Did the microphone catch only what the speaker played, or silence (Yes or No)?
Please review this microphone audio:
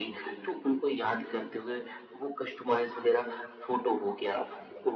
Yes